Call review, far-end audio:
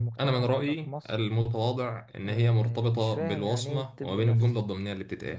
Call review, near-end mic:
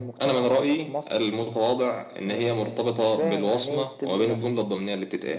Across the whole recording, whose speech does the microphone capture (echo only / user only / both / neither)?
echo only